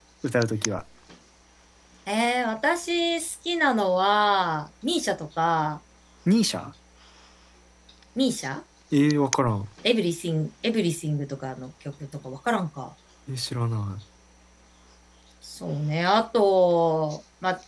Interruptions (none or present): none